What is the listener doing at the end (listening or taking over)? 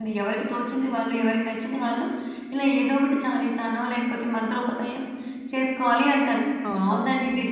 listening